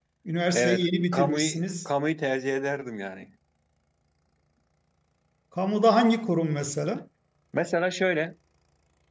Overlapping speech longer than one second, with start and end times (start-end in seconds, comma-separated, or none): 0.5-1.9